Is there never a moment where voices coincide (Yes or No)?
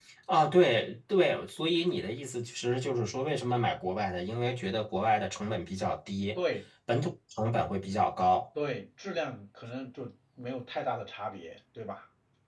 Yes